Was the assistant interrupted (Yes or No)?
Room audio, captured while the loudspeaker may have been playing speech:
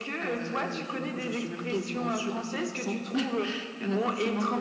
No